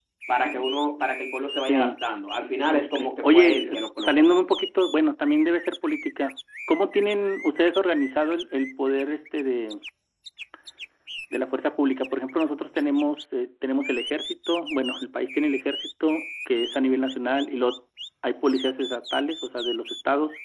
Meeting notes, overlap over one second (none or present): present